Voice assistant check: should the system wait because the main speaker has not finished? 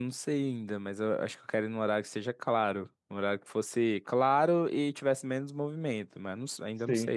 No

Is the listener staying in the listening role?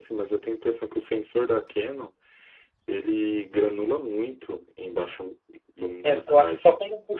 No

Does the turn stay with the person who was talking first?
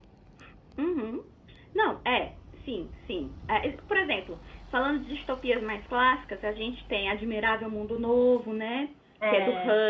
Yes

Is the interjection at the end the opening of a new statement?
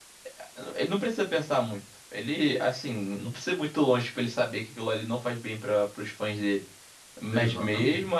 No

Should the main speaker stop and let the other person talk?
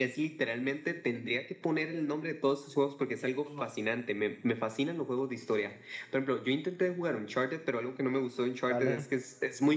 No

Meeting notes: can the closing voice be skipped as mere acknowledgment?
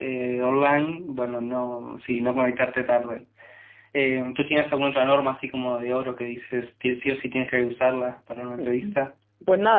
No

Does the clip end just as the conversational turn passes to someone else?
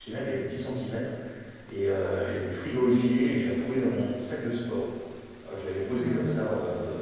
No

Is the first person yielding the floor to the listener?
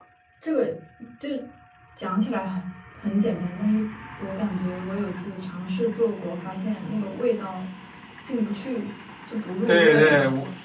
Yes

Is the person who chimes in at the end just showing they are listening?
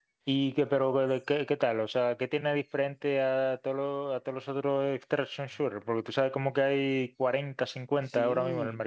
No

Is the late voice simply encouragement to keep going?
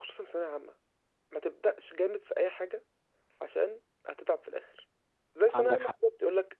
Yes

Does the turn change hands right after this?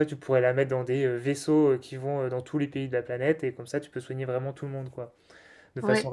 No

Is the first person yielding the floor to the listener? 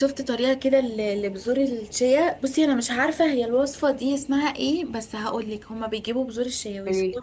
No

